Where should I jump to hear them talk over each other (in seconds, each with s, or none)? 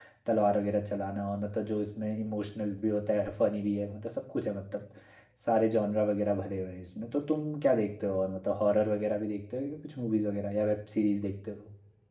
none